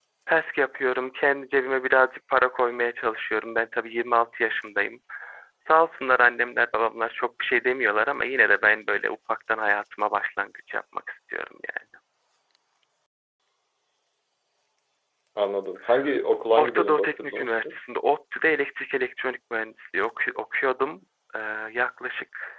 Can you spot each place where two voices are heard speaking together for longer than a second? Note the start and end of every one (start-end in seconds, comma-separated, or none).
16.5-17.7